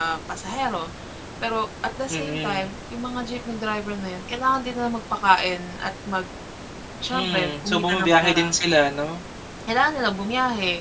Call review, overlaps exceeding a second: present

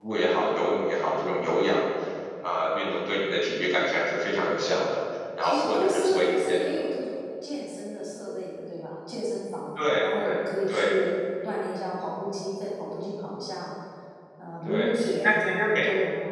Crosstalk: present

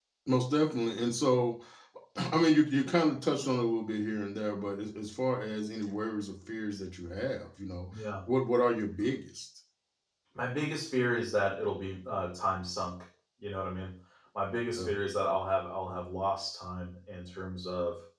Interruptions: none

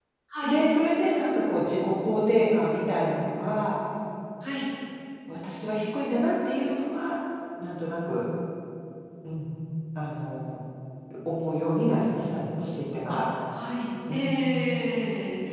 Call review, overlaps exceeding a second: none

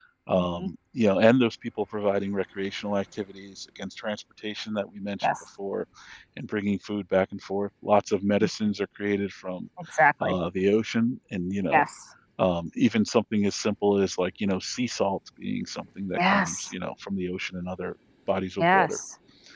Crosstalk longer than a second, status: none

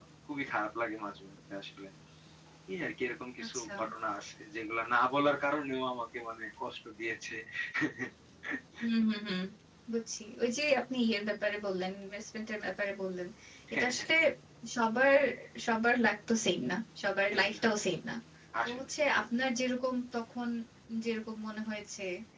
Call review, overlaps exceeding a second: none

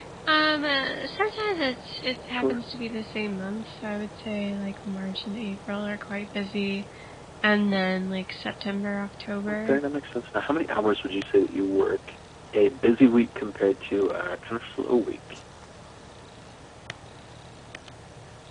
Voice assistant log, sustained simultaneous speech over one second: none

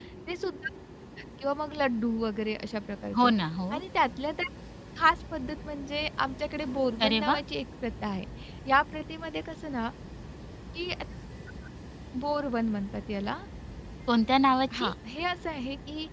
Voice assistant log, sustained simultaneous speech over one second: none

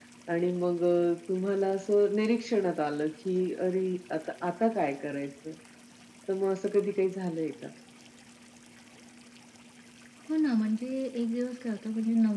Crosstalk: none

